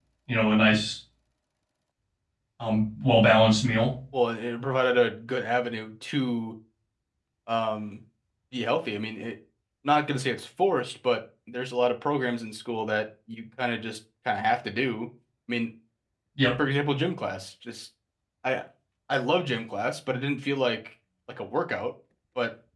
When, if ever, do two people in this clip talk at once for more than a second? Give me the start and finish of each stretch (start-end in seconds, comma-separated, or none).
none